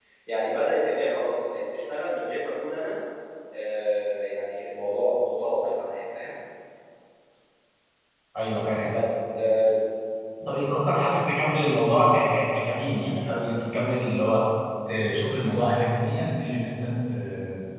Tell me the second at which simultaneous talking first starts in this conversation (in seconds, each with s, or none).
none